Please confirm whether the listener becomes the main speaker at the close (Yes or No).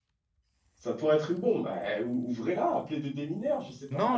Yes